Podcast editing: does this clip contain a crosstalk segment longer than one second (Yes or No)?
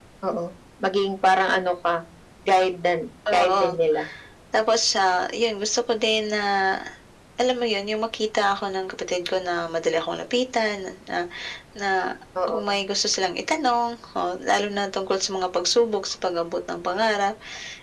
No